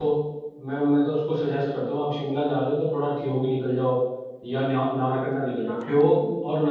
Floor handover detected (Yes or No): No